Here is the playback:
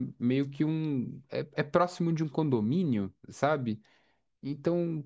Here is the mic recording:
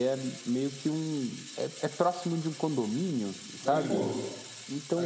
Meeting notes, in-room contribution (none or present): present